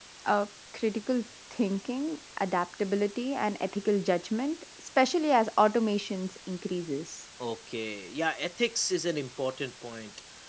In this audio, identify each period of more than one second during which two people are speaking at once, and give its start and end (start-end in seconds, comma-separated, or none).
none